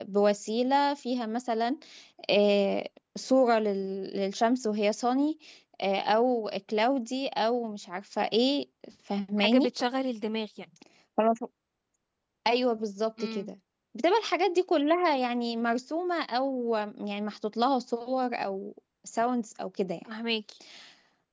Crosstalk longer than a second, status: none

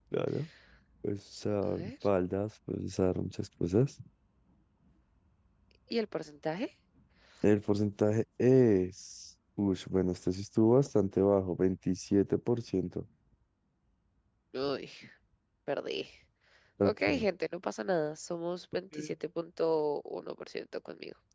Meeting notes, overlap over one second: none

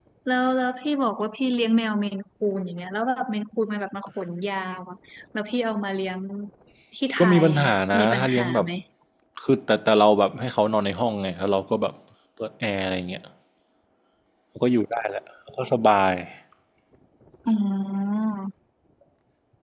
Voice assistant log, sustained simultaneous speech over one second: present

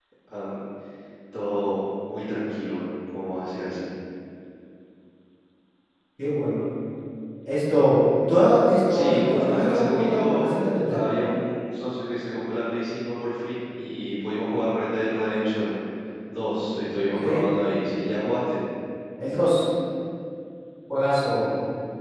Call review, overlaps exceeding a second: present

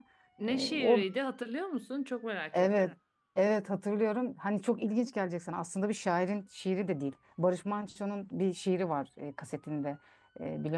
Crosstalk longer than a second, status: none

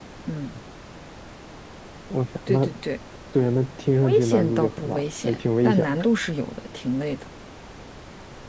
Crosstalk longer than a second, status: present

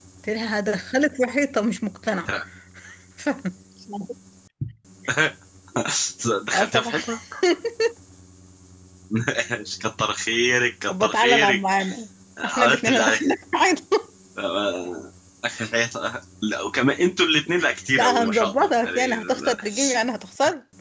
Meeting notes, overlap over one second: present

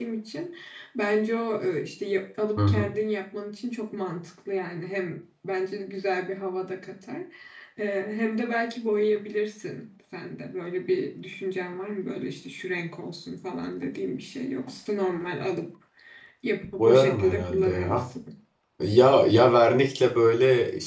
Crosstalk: present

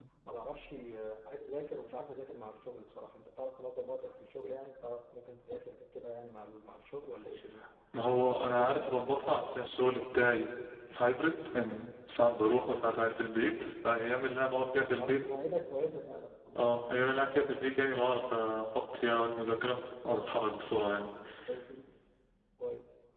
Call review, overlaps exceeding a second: none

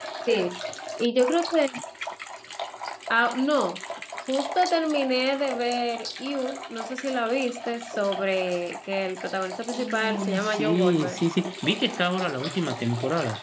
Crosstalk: present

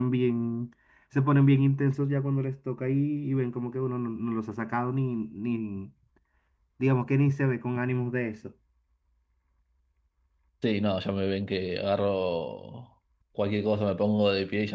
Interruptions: none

